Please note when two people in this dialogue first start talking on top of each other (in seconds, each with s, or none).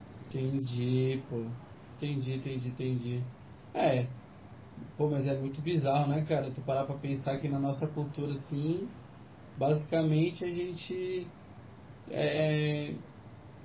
none